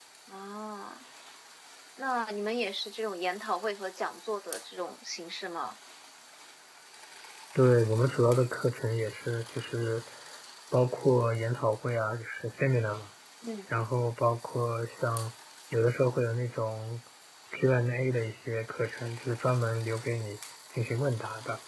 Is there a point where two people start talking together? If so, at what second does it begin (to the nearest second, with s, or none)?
none